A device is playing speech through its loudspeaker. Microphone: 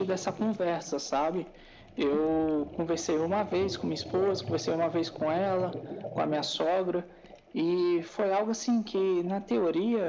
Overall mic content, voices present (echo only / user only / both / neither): echo only